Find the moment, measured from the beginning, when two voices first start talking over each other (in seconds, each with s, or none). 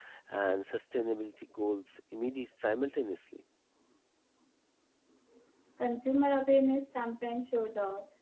none